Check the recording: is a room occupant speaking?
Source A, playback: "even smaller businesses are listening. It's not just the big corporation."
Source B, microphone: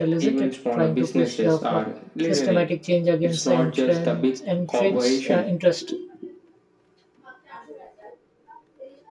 Yes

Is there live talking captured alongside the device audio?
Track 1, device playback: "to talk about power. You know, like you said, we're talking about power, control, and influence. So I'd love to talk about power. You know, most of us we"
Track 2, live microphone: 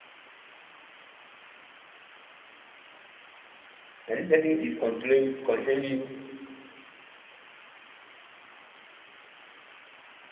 Yes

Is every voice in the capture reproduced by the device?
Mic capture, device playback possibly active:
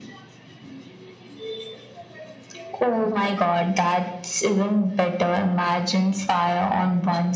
Yes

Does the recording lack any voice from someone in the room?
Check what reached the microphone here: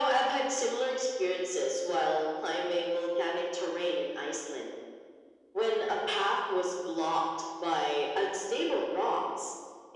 Yes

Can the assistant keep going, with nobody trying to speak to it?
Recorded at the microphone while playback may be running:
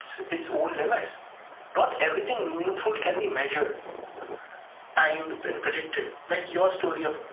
Yes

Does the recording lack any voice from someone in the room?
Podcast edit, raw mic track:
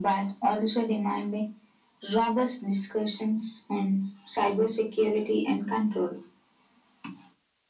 Yes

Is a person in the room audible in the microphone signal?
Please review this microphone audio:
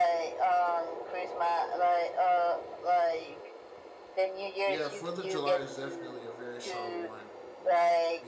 Yes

